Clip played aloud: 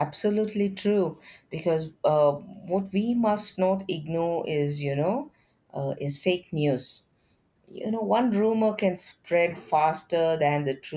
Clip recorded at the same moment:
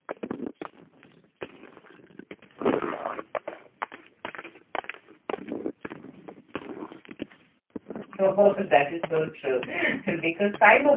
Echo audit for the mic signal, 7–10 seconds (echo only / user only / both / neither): user only